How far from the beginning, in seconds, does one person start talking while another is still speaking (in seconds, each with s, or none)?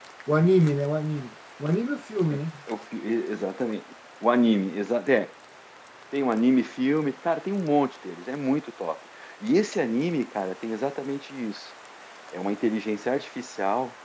none